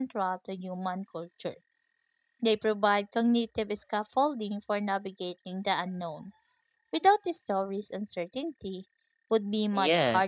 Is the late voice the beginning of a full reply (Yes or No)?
Yes